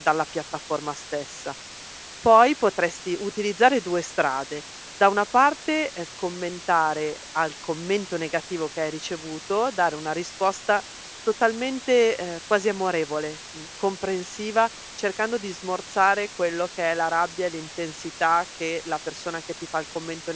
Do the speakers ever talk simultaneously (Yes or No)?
No